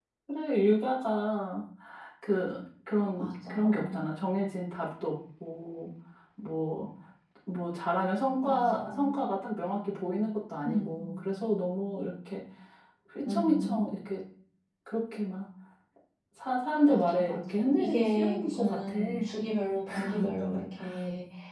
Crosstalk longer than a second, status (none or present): present